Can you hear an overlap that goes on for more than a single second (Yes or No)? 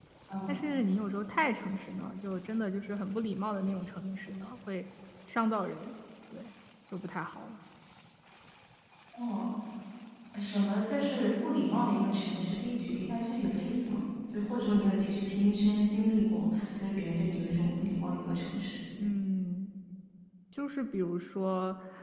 No